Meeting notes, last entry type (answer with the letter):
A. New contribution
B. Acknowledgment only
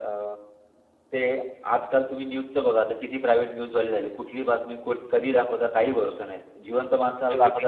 B